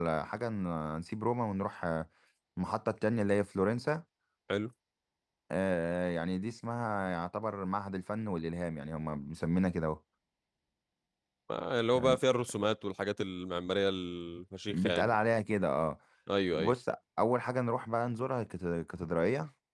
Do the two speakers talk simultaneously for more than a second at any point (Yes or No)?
No